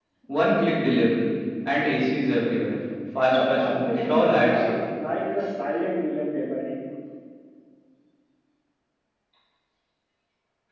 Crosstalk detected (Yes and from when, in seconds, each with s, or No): Yes, from 3.3 s